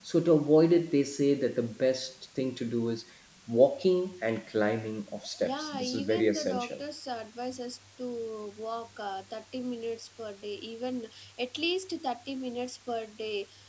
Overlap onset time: 5.4 s

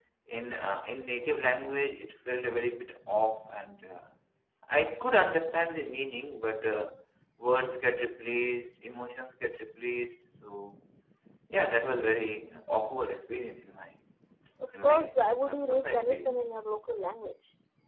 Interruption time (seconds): 14.8 s

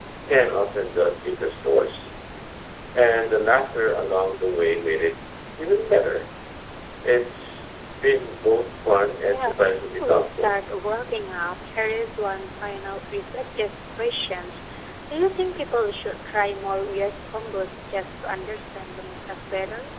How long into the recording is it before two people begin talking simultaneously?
9.3 s

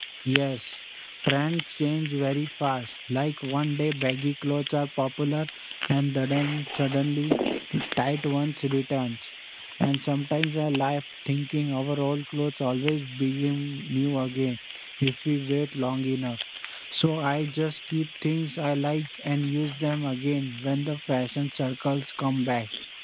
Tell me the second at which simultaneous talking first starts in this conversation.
none

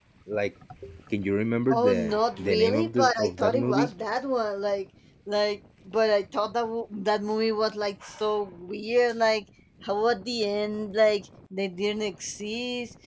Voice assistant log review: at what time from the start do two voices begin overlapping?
1.7 s

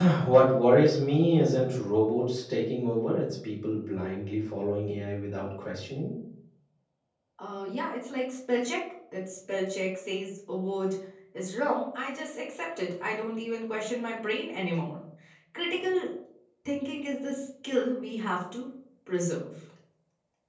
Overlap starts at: none

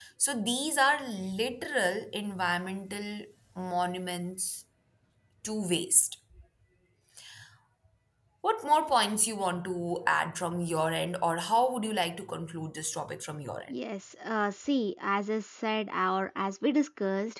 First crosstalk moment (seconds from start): none

